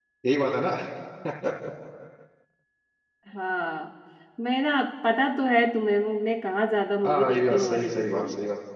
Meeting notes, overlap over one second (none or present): present